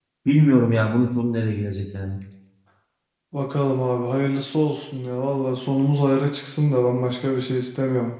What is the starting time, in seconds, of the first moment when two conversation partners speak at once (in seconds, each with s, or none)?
none